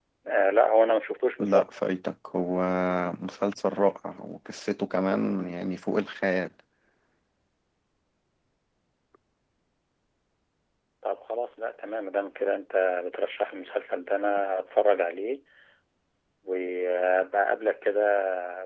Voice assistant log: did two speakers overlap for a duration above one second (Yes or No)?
No